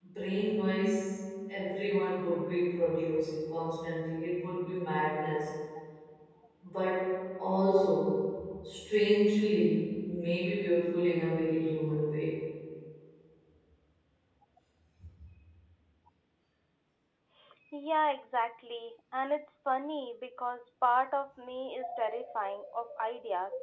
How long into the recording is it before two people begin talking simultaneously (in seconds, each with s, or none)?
none